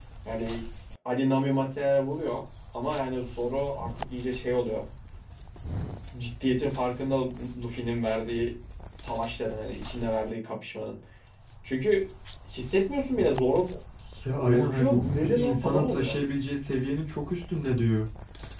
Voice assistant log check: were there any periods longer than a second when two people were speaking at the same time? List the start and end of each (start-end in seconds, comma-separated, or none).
14.4-16.2